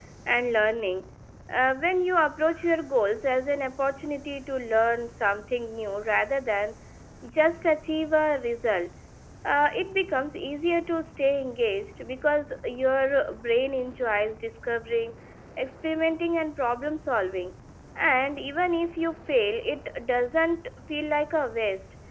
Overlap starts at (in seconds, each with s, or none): none